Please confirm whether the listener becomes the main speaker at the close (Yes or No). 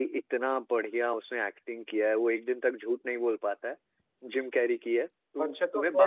Yes